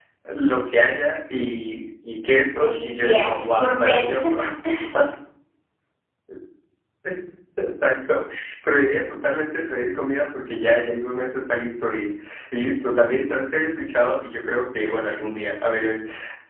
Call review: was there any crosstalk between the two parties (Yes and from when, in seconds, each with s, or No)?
Yes, from 2.6 s